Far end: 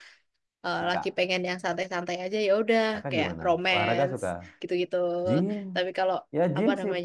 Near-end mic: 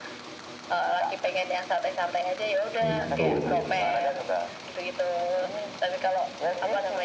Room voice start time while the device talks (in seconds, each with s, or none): 2.8 s